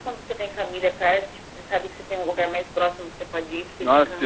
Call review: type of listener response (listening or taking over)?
taking over